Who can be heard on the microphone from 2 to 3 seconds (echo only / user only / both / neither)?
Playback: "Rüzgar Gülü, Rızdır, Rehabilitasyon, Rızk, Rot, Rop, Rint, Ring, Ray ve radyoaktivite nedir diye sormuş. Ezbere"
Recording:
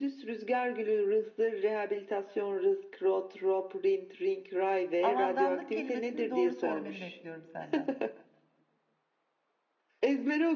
echo only